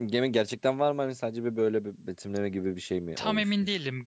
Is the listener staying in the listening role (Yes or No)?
No